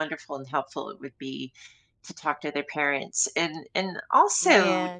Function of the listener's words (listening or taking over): taking over